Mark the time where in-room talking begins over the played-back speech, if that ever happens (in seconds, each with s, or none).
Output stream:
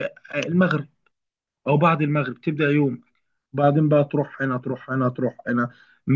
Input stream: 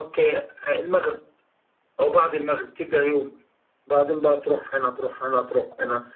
none